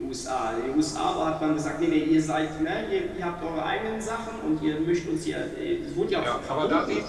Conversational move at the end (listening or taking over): taking over